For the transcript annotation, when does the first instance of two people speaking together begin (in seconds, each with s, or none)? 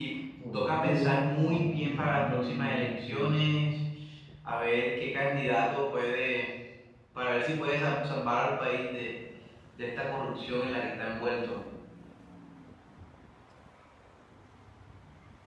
0.5 s